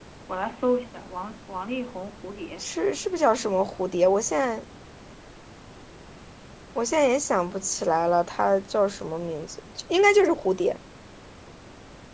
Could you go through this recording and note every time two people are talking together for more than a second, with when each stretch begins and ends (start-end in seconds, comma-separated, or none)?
none